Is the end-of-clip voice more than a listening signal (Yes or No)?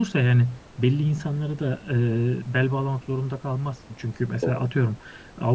No